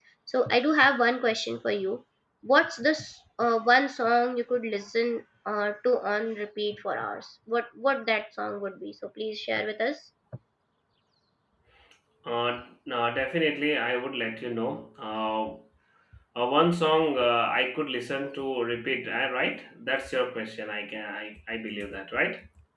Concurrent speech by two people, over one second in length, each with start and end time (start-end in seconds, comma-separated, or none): none